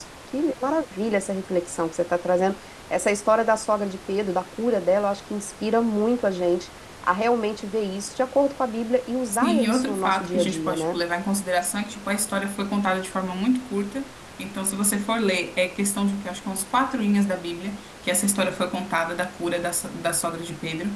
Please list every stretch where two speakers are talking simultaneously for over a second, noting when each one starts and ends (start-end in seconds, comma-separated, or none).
9.3-11.0